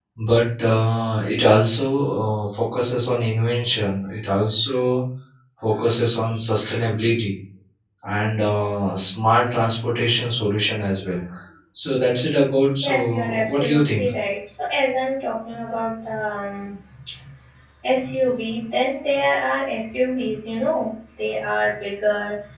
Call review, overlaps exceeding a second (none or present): present